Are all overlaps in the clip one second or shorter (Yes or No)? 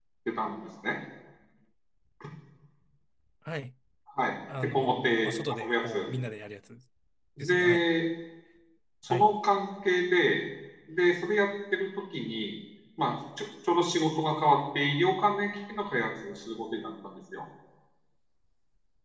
No